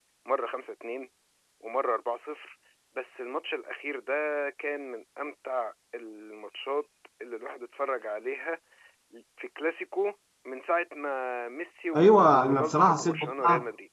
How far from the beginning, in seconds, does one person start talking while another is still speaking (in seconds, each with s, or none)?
11.9 s